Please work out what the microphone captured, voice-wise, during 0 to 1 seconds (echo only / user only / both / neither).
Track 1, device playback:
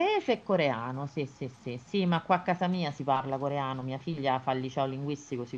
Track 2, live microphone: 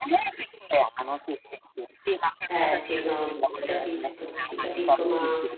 echo only